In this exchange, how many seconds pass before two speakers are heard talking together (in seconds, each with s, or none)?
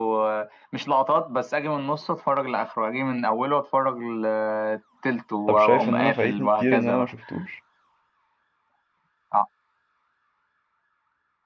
5.5 s